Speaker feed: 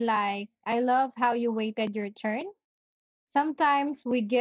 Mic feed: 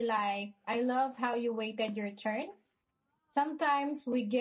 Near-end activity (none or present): none